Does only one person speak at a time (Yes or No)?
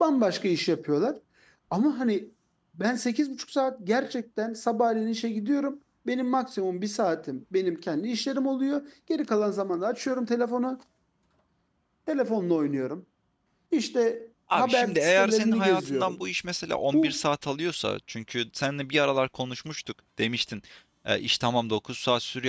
No